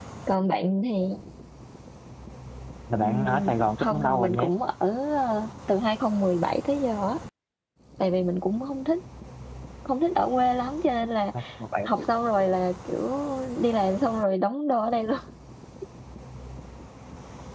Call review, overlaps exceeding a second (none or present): present